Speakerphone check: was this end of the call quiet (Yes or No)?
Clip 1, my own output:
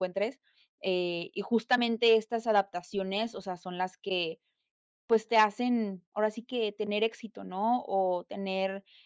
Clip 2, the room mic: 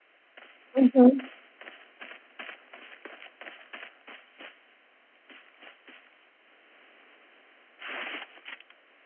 No